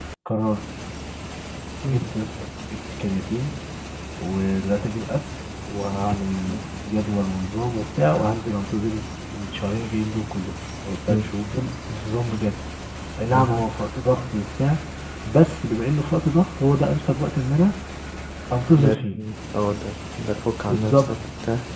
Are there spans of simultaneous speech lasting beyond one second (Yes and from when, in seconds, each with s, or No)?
No